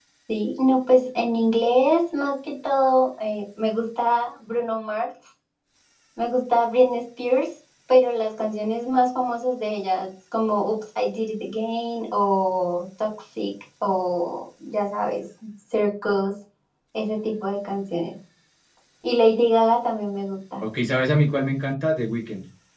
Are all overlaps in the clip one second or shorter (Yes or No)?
Yes